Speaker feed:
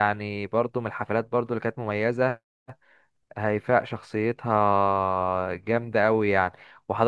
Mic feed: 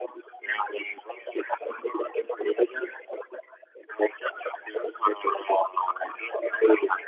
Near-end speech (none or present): none